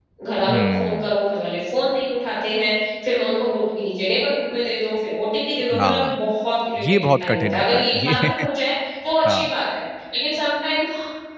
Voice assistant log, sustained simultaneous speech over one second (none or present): present